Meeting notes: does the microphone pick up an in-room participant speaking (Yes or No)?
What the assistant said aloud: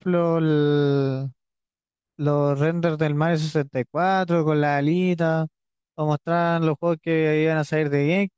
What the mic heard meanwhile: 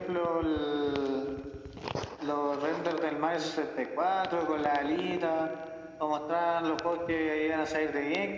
No